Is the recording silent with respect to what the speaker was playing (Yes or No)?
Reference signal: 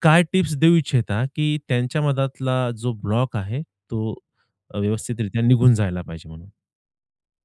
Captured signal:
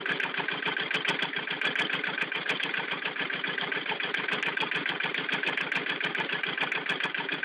Yes